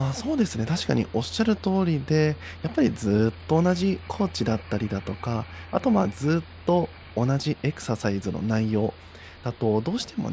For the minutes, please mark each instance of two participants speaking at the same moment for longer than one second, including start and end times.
none

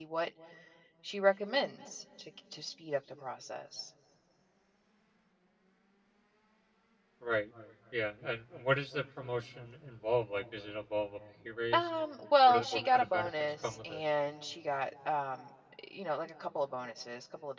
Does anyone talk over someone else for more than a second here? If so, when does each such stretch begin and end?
12.4-14.0

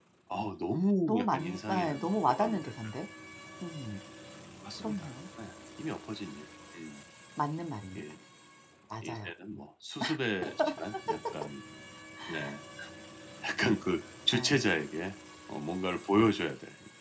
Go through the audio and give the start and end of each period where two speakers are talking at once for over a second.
1.1-2.7

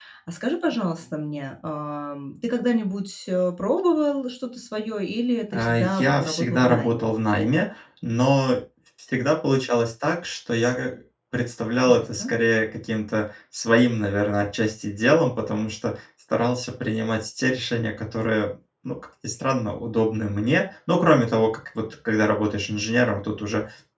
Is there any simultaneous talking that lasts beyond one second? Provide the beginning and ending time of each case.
5.5-7.1

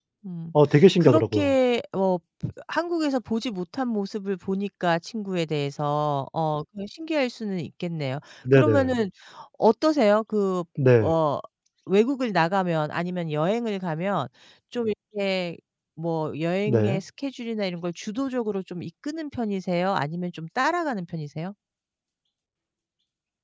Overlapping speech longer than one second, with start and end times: none

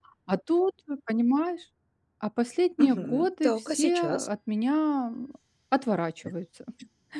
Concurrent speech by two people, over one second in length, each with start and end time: 2.8-4.3

